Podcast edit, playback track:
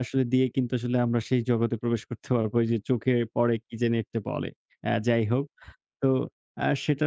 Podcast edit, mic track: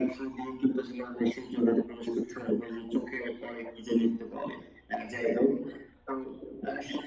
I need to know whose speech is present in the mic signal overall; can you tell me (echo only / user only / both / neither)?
echo only